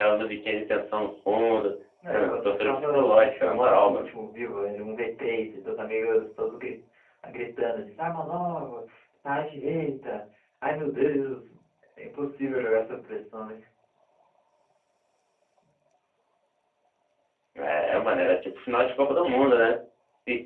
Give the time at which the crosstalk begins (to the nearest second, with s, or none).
2 s